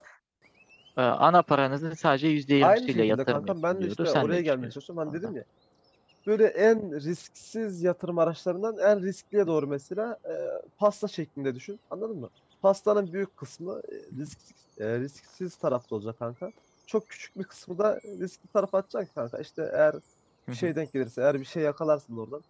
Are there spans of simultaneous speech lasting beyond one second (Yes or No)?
Yes